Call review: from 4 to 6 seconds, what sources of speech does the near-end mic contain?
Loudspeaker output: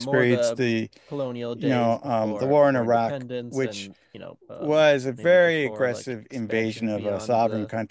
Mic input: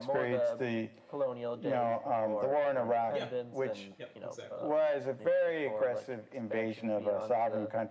both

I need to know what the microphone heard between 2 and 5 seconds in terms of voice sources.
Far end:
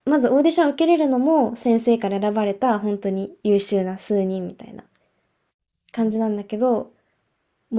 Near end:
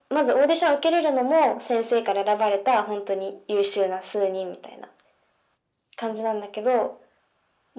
echo only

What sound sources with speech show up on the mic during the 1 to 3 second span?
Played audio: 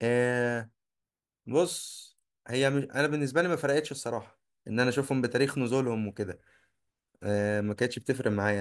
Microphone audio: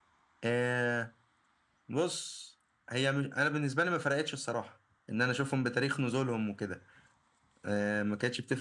echo only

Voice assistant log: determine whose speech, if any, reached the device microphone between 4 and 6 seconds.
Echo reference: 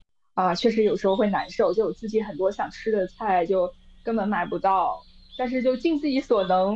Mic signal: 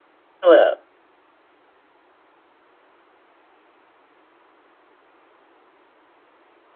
neither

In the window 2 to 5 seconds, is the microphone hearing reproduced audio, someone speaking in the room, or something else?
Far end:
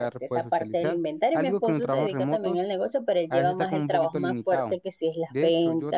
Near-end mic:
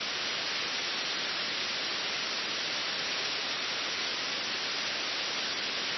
neither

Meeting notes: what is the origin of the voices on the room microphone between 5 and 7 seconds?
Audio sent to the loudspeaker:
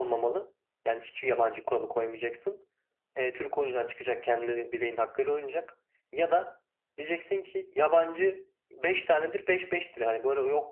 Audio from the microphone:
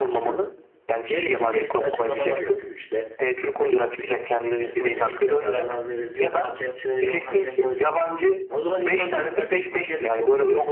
both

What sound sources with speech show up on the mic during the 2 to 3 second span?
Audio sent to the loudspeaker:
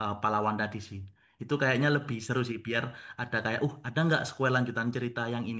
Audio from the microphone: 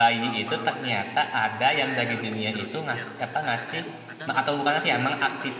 both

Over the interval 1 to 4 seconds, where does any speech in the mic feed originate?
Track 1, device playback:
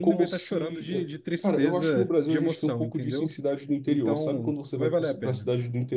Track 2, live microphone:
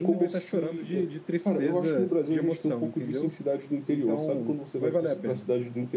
echo only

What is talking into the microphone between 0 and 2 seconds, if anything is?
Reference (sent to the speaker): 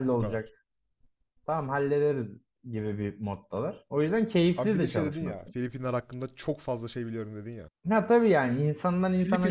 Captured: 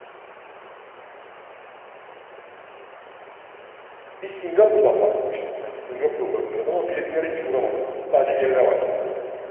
neither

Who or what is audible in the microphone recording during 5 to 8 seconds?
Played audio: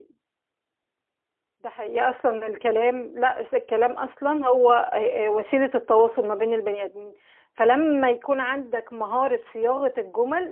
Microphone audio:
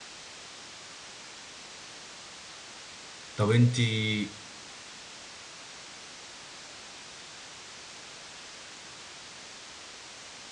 neither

